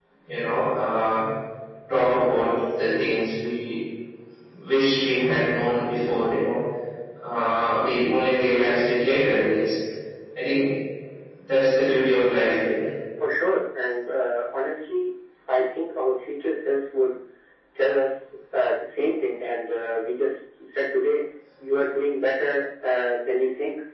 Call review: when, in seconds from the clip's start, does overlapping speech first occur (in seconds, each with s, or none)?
none